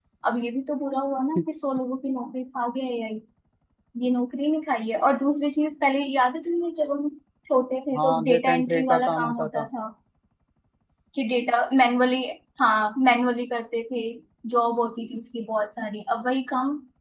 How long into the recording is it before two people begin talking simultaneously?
8.0 s

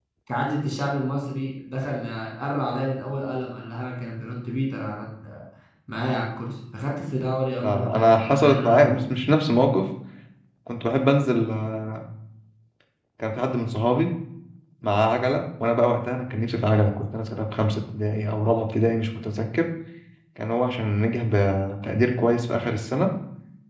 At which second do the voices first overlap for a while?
7.6 s

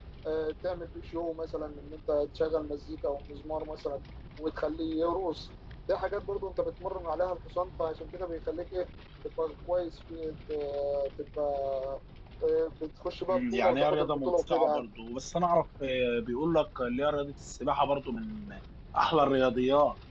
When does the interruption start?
13.3 s

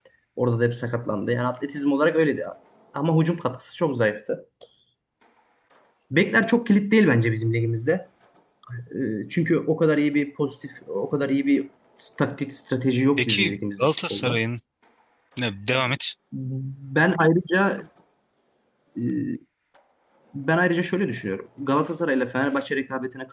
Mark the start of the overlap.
13.2 s

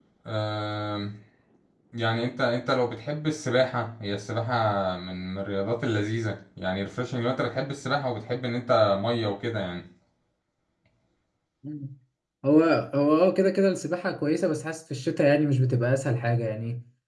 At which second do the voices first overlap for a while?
none

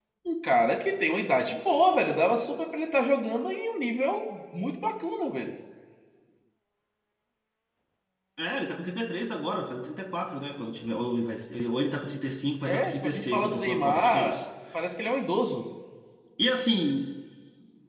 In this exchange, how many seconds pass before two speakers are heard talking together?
12.7 s

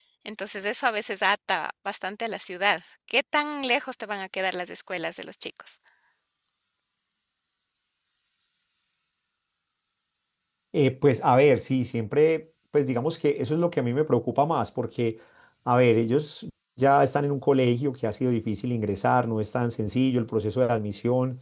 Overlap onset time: none

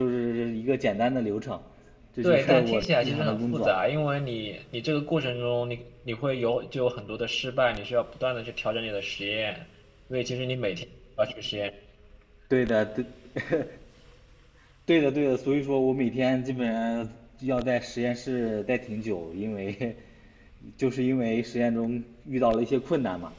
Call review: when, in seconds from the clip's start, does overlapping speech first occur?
2.2 s

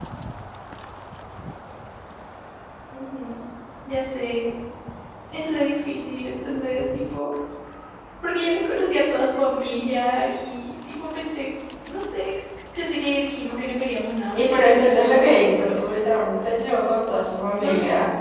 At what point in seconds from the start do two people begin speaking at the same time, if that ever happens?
14.3 s

